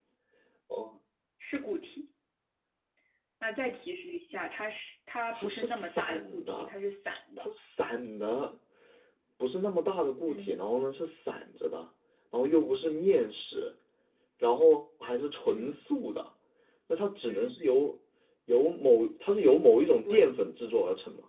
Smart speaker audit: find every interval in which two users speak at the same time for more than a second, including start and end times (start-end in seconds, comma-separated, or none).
5.3-6.7